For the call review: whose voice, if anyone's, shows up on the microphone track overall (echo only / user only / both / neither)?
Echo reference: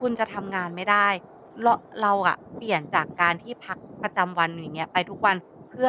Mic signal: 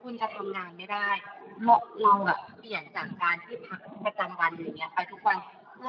echo only